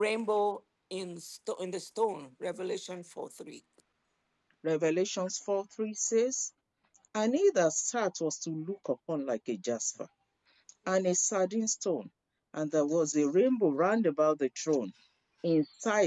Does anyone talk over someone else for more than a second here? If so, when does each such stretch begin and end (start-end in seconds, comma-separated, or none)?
none